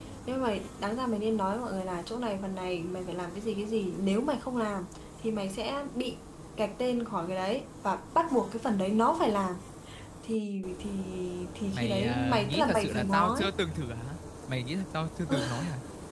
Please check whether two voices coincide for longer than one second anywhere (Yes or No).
Yes